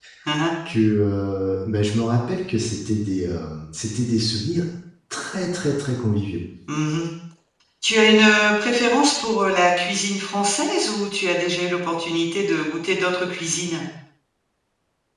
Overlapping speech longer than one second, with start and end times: none

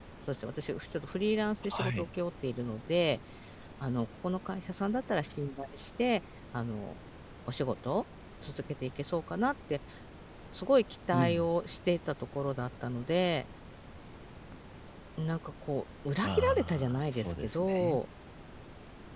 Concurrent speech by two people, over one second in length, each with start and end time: 16.2-18.0

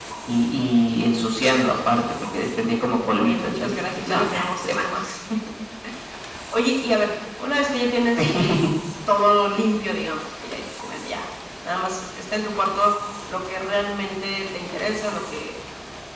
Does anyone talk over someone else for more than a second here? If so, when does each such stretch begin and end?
3.0-4.7

